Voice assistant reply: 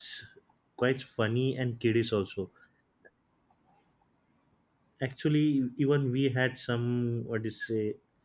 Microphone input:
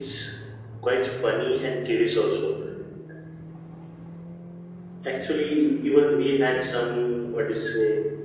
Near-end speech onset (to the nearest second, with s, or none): none